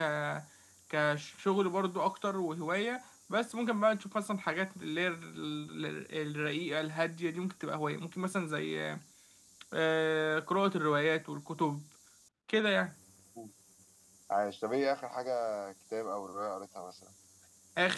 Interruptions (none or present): none